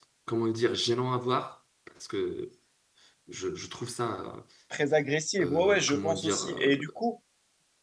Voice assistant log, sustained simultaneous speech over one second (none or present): present